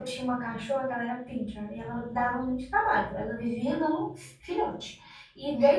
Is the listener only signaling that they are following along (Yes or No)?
Yes